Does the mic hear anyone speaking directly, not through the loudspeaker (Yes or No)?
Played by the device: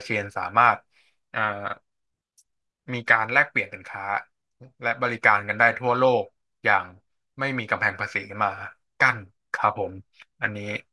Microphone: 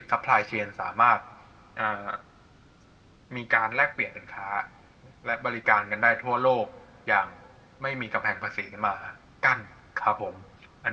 No